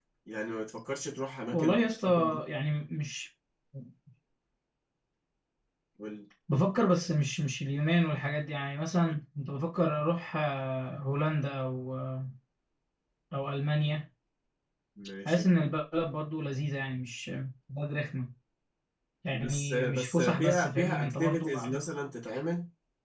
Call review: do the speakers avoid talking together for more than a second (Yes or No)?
No